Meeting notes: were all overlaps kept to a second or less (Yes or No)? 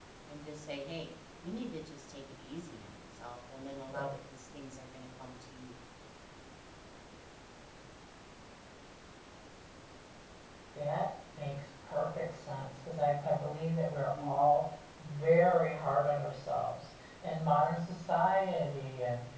Yes